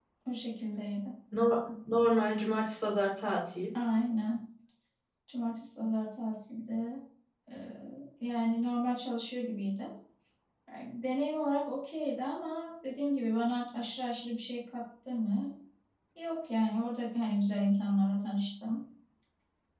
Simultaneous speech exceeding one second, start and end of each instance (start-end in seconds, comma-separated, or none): none